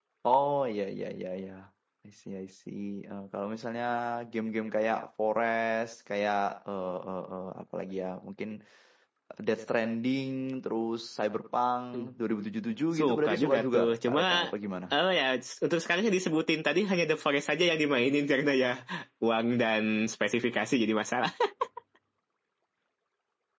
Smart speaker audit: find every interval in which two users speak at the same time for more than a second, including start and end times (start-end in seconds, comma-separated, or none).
13.0-14.2